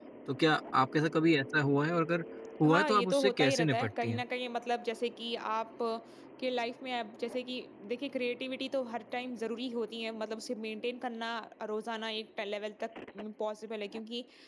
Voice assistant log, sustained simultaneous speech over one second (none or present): present